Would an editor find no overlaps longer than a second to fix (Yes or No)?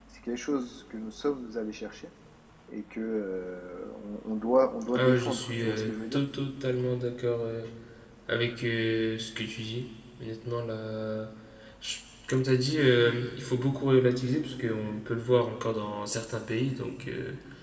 No